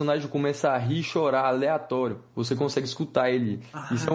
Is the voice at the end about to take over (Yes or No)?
Yes